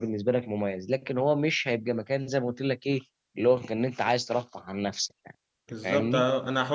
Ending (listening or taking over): taking over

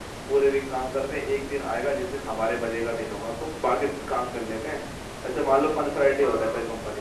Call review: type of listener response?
listening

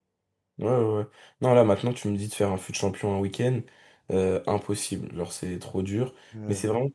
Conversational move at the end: listening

